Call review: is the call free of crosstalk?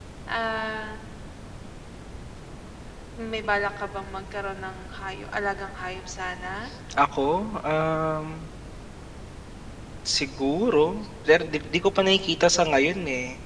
Yes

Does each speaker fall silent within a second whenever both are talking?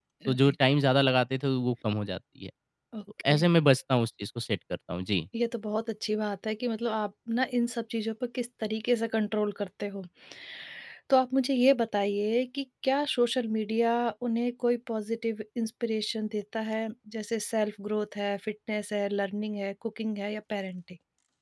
Yes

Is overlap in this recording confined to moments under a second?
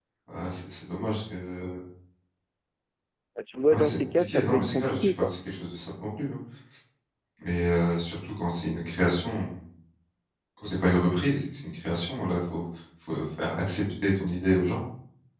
No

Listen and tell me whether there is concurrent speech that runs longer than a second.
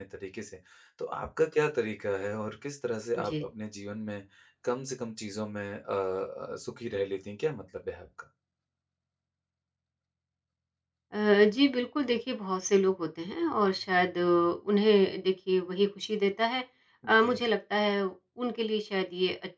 No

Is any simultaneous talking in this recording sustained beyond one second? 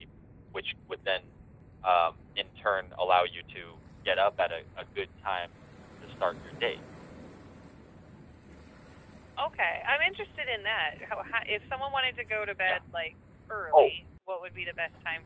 No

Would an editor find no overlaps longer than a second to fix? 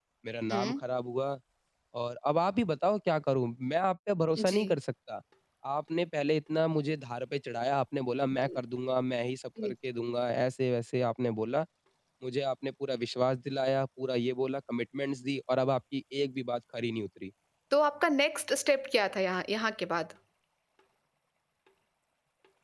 Yes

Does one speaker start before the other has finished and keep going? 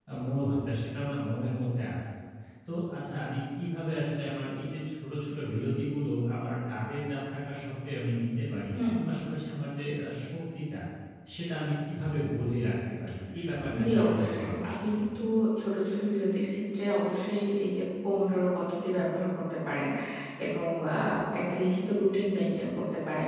Yes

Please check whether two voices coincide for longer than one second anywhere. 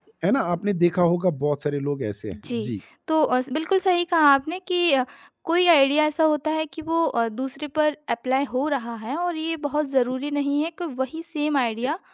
No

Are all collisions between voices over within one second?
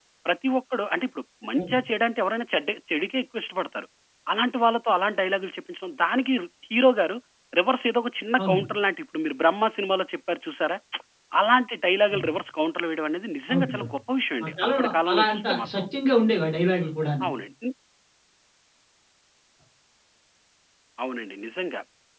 No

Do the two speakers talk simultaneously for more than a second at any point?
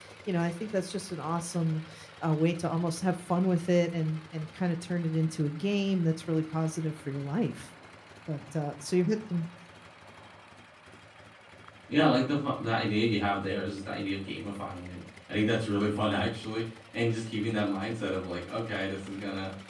No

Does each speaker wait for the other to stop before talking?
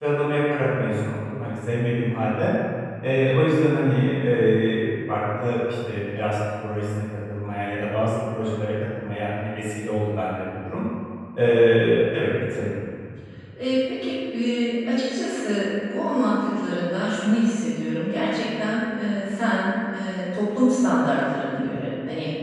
Yes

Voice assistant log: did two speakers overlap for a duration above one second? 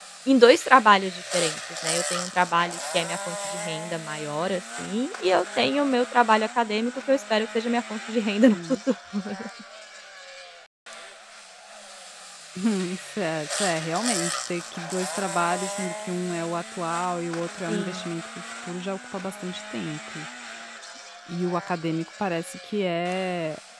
No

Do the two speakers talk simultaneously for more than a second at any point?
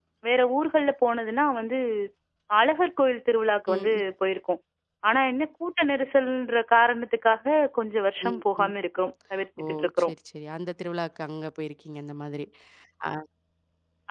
No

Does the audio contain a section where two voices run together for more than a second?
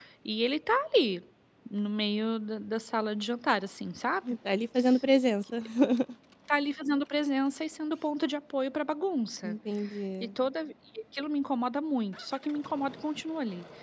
No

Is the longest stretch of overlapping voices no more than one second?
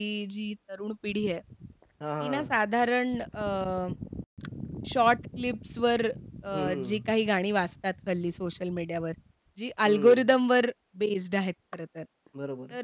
Yes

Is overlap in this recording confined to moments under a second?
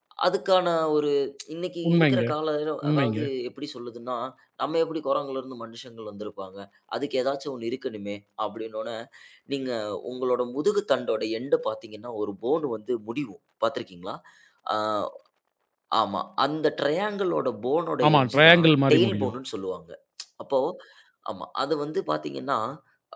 No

